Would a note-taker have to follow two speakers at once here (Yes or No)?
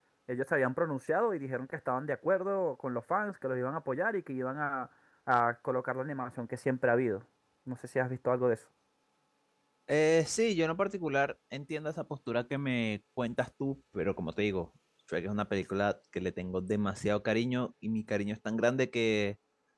No